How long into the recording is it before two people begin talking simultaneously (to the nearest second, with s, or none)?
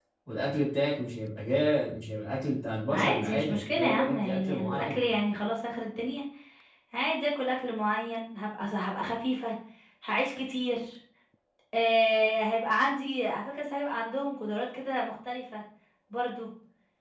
3 s